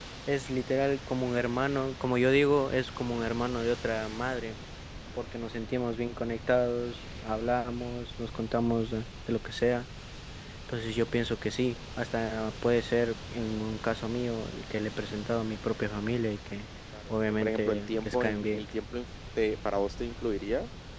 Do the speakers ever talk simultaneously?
Yes, from 17.1 s

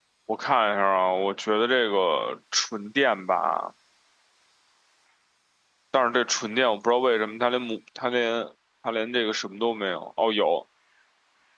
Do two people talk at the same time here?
No

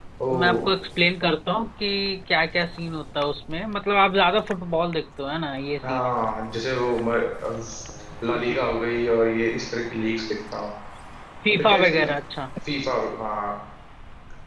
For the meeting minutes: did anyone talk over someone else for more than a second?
No

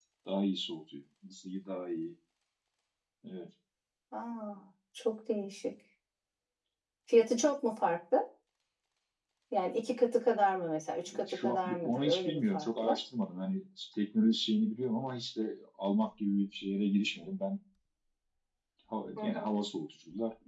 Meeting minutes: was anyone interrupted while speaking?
Yes, from 11.2 s

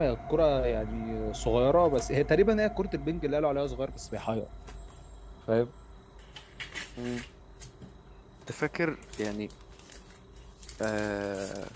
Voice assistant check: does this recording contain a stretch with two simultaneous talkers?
No

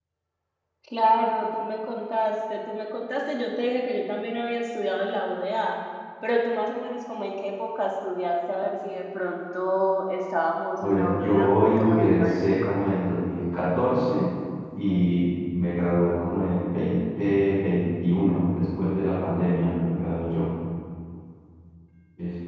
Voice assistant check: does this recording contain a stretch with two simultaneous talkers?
Yes, from 10.8 s

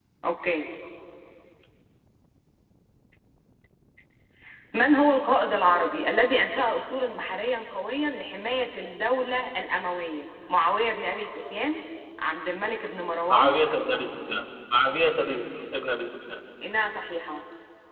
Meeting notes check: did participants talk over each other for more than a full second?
No

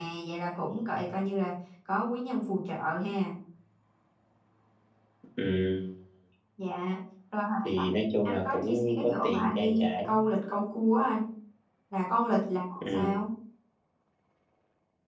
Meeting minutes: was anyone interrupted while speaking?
Yes, from 7.6 s

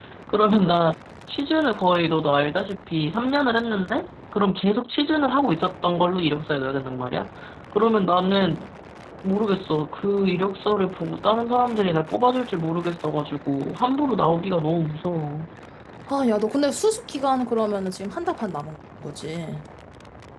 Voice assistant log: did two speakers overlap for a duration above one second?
No

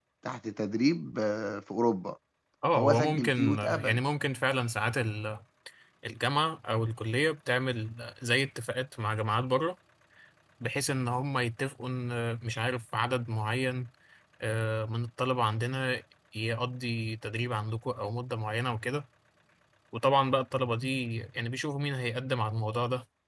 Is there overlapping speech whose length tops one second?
Yes, from 2.8 s

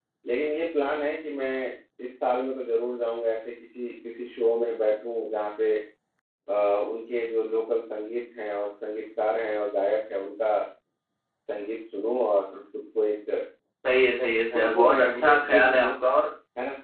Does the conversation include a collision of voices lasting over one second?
Yes, from 14.5 s

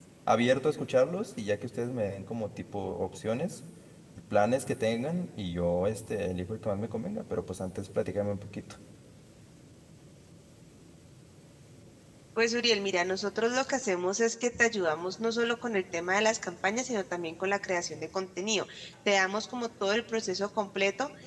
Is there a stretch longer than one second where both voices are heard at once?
No

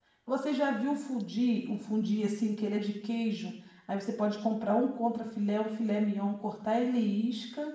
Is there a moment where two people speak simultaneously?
No

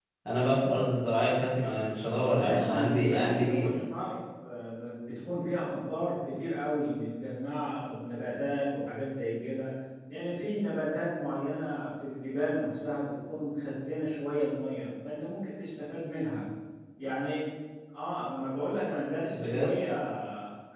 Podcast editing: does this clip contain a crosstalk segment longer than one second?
Yes, from 2.4 s

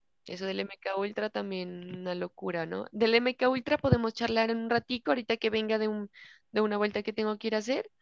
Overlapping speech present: No

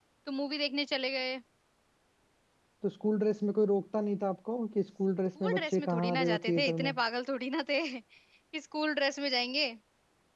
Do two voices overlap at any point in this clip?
Yes, from 5.4 s

